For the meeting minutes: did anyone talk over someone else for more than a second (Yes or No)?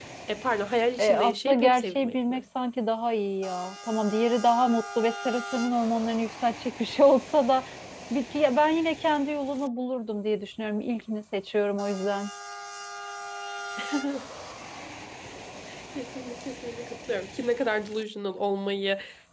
Yes